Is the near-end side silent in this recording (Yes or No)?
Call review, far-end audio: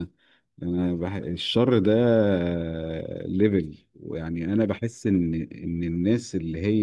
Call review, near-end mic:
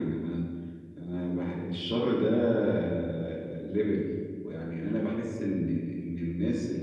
Yes